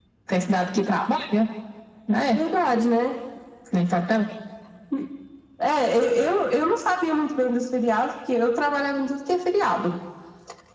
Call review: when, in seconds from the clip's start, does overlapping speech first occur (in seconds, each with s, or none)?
none